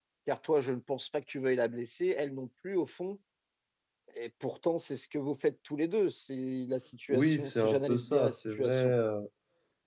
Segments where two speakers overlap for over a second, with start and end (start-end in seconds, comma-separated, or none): 7.1-8.9